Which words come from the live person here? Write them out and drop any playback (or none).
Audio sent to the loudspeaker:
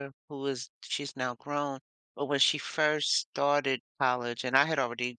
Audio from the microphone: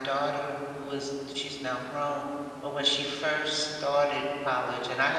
none